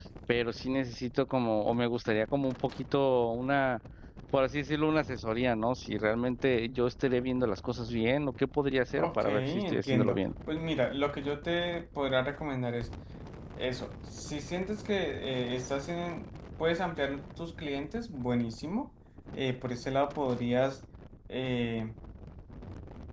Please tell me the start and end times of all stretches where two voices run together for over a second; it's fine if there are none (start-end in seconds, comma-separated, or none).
9.0-10.2